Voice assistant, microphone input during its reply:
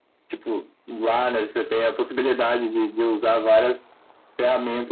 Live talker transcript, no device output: none

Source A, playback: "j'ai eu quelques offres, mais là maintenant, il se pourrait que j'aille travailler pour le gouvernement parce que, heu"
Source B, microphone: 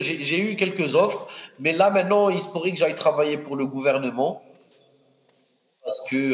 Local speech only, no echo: none

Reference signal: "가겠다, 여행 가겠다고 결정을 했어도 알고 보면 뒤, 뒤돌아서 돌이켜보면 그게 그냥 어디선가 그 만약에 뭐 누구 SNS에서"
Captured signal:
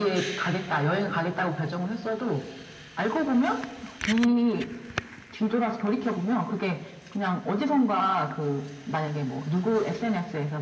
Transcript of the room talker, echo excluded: none

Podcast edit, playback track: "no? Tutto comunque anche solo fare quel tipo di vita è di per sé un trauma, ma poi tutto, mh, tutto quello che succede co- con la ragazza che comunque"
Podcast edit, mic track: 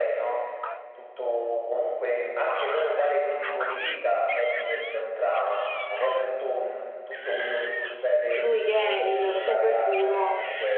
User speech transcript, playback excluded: lui che è il super duro

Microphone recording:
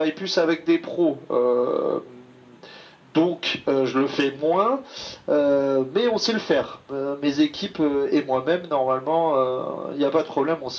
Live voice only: none

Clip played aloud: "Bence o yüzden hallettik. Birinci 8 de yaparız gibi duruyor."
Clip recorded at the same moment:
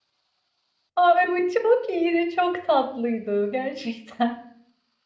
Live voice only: Ay bu çok iyiydi, çok tatlıydı gerçekten.

